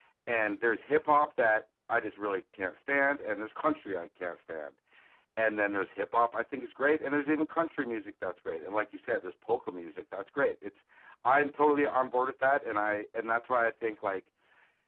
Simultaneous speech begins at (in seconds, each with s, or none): none